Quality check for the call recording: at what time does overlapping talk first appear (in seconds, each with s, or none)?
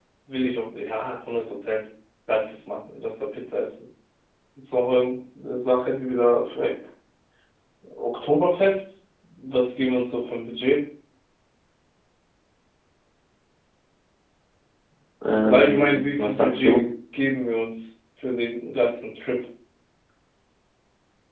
15.4 s